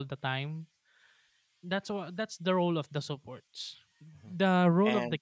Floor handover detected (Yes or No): No